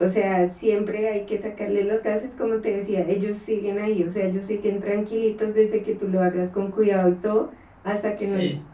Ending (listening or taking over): listening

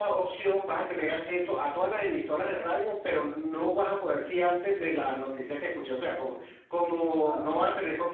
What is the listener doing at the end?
listening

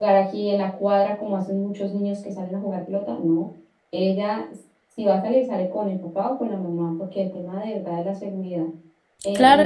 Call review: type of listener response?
taking over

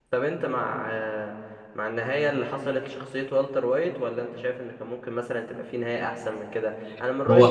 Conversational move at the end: listening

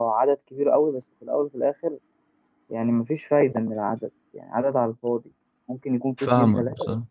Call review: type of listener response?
listening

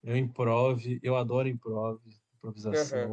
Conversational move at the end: taking over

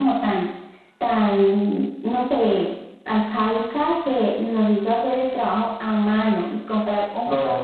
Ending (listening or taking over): listening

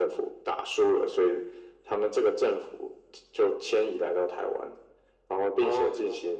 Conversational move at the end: listening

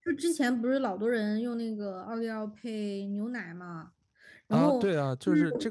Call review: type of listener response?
taking over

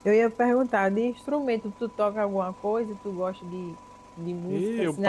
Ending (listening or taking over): taking over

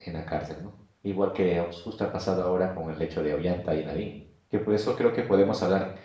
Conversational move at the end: listening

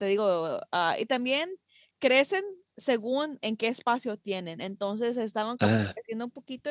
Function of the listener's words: listening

